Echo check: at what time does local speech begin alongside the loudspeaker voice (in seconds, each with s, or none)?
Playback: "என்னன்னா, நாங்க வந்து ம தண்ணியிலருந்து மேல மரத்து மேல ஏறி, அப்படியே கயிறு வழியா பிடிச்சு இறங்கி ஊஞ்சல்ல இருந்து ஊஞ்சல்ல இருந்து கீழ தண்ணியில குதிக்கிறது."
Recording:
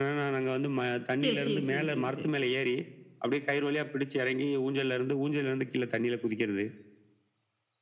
1.2 s